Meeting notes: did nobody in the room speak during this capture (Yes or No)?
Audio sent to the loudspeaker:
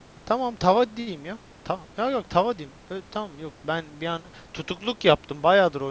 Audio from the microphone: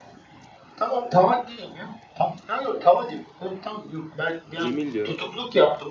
No